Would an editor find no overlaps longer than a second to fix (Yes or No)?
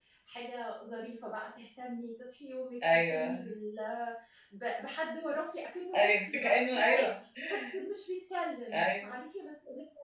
No